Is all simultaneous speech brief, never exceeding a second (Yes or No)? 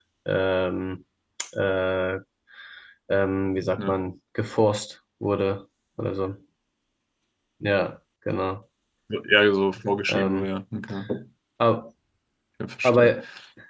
Yes